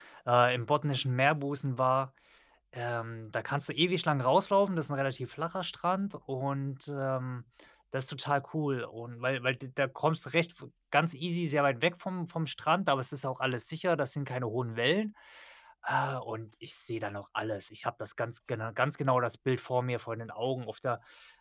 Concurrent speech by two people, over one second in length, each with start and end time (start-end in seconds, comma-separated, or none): none